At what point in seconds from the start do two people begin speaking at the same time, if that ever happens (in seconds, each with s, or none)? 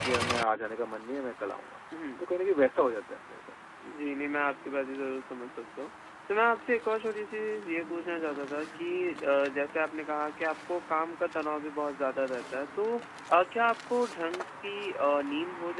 none